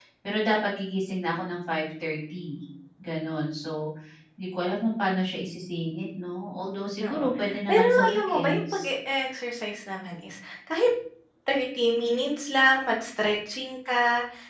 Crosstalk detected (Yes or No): Yes